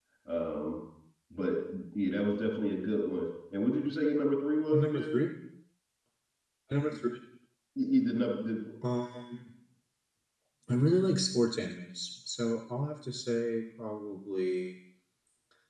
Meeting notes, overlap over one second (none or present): none